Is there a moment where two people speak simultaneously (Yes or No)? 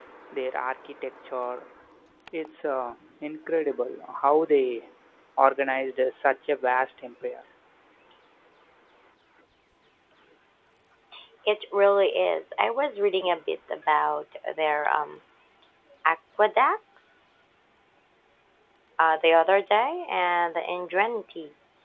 No